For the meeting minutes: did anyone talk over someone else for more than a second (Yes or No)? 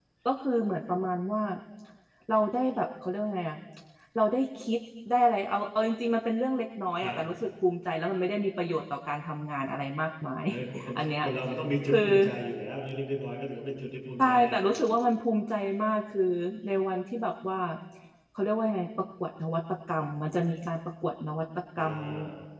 No